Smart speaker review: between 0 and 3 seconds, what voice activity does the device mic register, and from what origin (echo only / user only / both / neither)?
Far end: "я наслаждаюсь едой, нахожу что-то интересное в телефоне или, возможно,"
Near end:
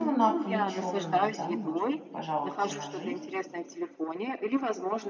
both